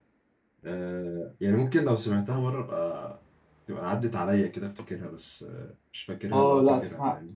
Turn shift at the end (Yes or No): Yes